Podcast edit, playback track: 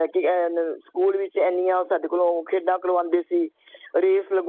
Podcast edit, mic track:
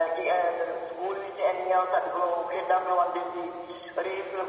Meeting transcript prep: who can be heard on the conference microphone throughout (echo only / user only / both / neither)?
echo only